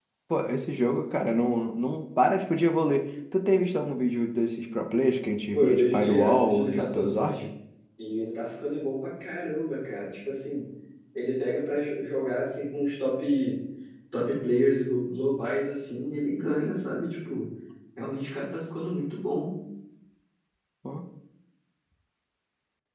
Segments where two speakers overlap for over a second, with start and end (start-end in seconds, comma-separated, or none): 5.5-7.4